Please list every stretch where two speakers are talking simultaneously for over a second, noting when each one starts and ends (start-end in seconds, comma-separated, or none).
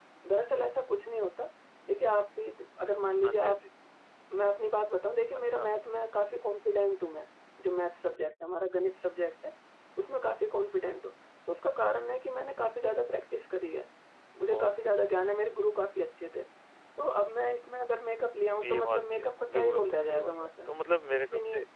18.6-20.7